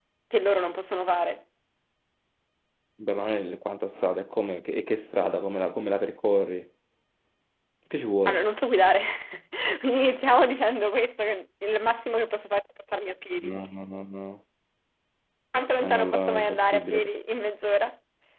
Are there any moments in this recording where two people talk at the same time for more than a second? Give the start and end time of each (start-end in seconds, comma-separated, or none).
15.8-17.1